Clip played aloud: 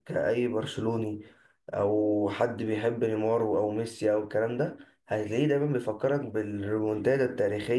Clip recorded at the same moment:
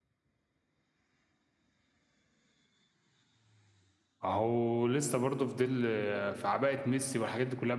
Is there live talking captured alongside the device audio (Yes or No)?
Yes